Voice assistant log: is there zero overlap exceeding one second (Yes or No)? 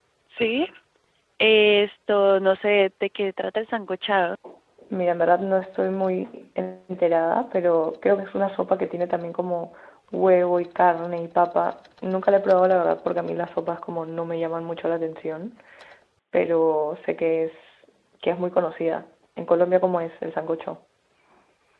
Yes